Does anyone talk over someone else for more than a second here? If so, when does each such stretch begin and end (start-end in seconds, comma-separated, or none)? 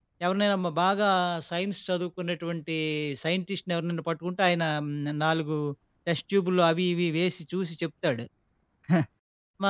none